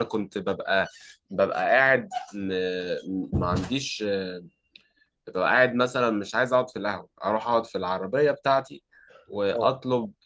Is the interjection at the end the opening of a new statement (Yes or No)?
No